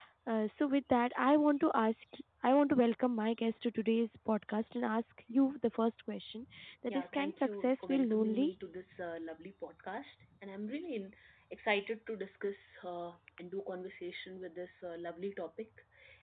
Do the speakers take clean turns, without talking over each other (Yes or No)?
No